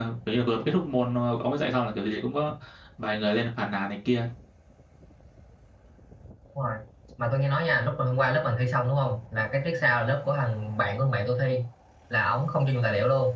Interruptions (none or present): none